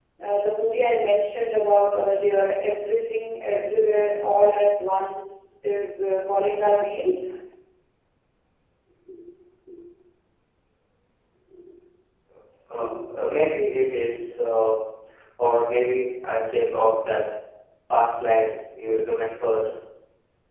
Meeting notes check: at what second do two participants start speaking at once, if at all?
none

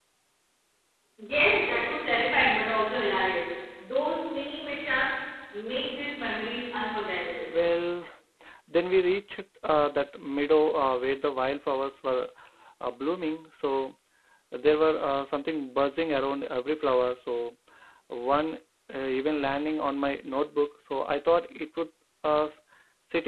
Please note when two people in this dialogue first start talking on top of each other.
none

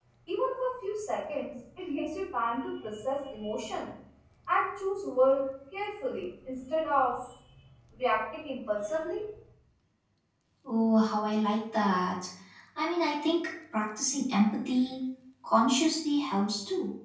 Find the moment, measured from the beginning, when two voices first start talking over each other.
none

